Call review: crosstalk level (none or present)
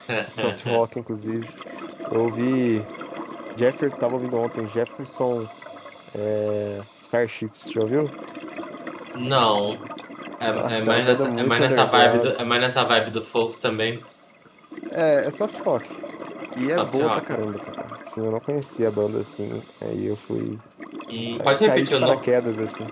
present